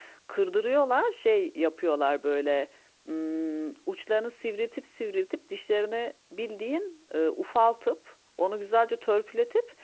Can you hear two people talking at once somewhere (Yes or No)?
No